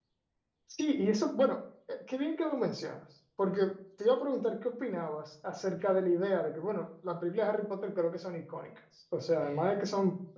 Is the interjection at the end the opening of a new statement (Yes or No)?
No